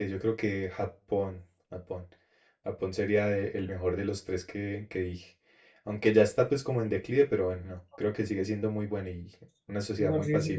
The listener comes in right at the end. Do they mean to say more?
Yes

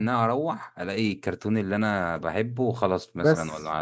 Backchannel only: No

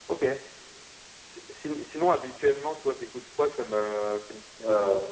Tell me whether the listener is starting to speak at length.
Yes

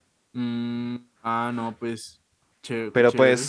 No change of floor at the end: No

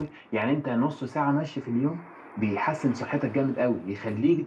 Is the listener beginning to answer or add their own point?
No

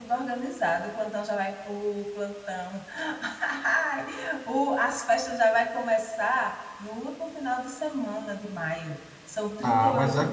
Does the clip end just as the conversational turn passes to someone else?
Yes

